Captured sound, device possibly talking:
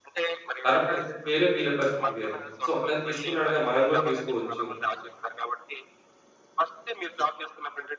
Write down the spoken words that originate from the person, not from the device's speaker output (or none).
తన పరిస్థితి వేరే, వీళ్ళ పరిస్థితి వేరే. సో, అతను తీసుకున్నాడుగా మనం కూడా తీసుకోవచ్చు